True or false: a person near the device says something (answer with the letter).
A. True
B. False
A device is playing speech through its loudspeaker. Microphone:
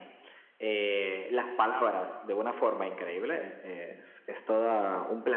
B